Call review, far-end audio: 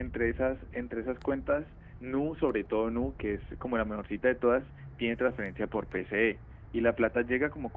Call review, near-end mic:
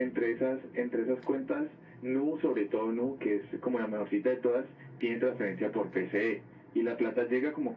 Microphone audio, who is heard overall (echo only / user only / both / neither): echo only